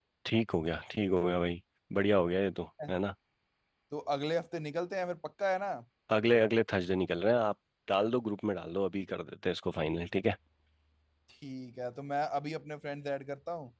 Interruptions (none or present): none